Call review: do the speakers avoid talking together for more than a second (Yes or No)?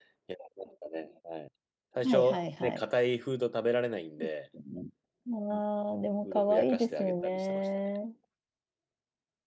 No